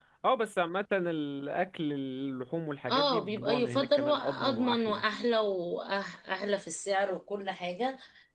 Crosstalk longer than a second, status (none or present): present